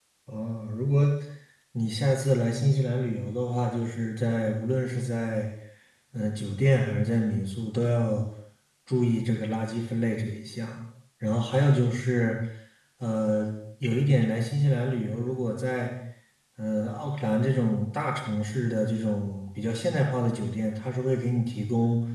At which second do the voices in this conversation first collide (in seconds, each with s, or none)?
none